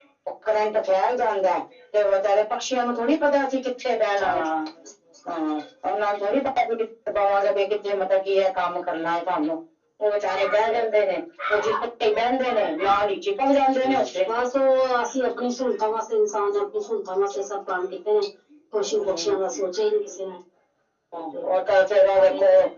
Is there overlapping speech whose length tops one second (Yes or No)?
No